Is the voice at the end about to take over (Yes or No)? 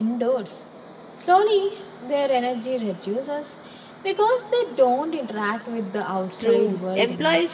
Yes